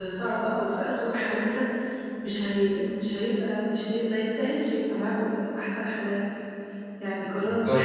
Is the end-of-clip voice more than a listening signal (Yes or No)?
Yes